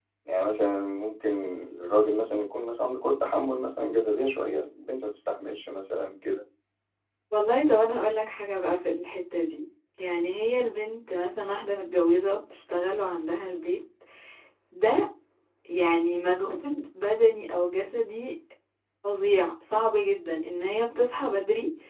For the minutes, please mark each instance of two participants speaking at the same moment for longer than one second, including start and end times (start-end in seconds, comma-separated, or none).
none